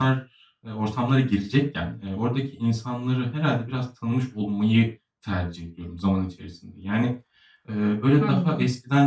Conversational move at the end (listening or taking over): listening